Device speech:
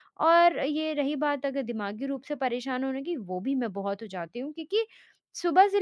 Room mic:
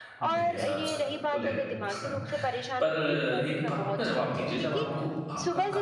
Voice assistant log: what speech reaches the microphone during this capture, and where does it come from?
both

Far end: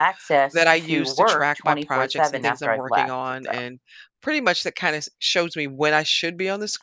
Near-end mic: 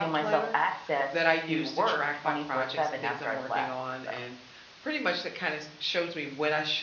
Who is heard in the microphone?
echo only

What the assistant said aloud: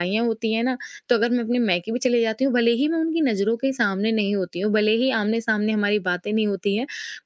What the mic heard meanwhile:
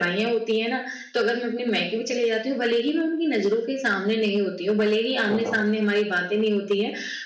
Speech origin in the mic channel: both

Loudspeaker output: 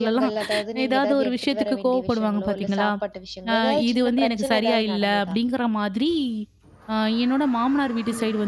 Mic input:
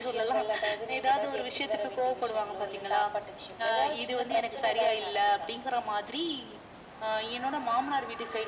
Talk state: echo only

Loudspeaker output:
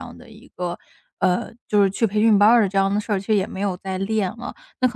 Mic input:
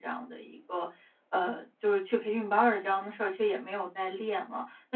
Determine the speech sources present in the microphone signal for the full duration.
echo only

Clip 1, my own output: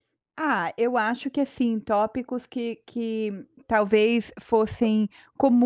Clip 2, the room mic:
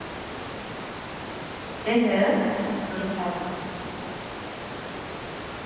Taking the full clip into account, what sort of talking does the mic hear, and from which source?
user only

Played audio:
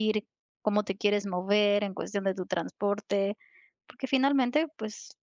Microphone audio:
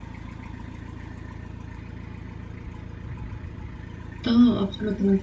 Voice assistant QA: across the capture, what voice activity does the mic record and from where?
user only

